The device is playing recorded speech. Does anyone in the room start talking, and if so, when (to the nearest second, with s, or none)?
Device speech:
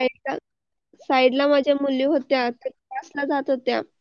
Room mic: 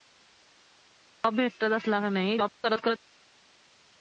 1 s